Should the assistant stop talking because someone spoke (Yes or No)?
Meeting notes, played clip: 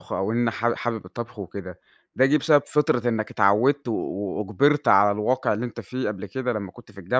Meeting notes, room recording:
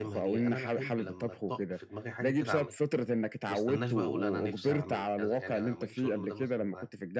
Yes